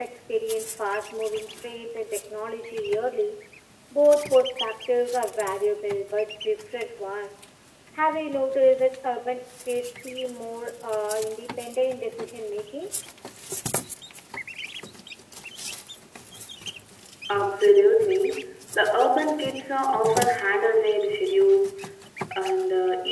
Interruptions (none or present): none